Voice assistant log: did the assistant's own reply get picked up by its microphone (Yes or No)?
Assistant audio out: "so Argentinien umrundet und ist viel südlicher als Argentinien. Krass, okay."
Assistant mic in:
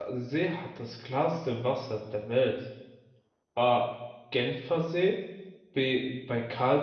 No